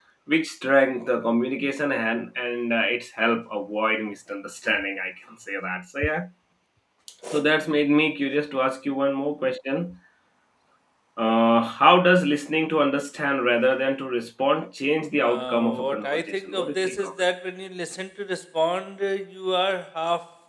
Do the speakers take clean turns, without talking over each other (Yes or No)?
No